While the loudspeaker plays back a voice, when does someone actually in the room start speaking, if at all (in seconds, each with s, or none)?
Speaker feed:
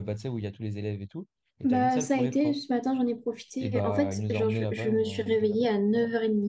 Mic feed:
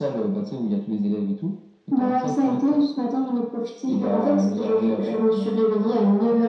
none